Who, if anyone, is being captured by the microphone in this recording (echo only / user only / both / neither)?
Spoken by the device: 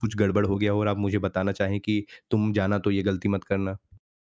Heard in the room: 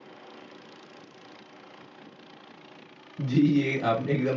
user only